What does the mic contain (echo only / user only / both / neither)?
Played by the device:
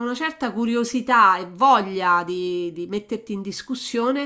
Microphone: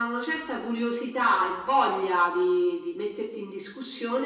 echo only